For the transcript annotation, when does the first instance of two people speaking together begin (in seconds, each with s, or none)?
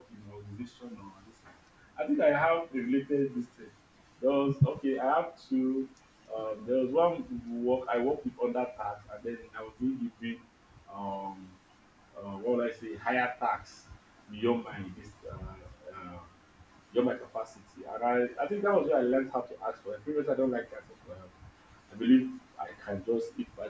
none